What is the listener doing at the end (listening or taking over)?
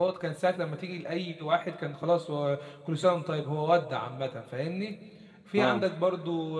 listening